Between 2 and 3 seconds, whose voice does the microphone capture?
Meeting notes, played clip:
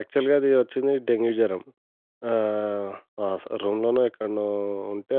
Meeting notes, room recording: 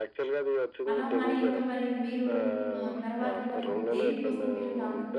both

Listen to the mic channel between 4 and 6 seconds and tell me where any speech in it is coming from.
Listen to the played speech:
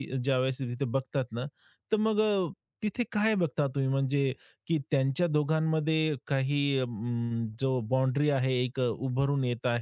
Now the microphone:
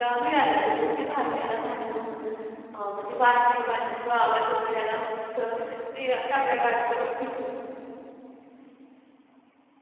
user only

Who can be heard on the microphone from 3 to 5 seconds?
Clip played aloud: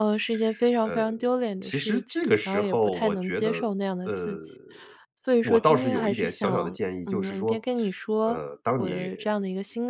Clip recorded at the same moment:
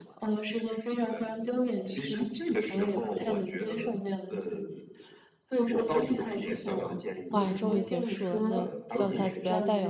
echo only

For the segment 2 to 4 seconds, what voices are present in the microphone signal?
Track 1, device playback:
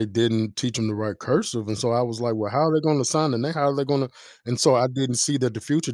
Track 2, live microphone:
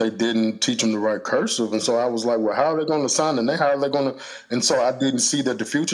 echo only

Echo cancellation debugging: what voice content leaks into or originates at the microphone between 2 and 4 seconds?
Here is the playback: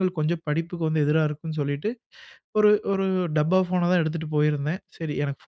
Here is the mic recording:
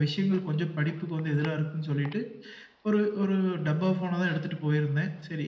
echo only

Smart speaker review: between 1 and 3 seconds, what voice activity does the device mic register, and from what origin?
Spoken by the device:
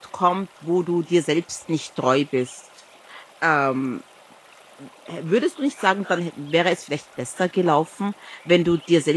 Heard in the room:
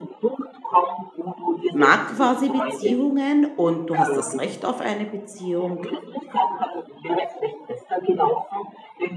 both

